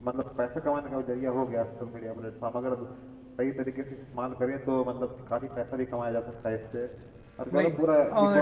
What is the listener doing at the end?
listening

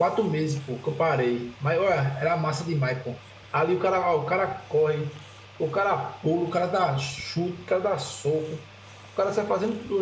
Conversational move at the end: listening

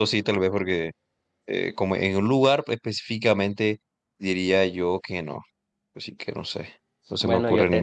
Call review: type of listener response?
taking over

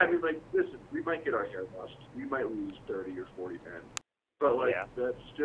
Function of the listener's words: listening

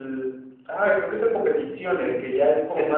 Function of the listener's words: taking over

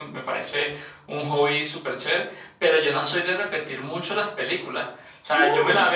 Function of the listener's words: listening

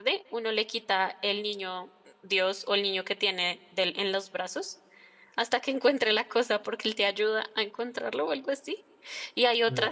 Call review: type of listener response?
listening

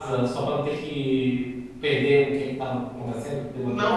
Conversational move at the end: taking over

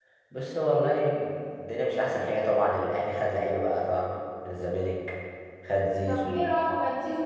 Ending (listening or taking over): taking over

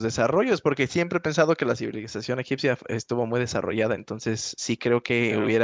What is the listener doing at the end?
listening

